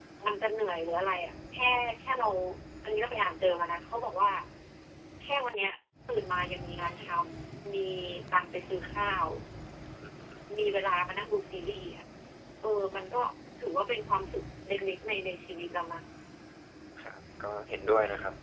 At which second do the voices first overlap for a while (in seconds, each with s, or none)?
none